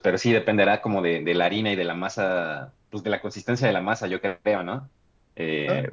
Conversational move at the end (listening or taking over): listening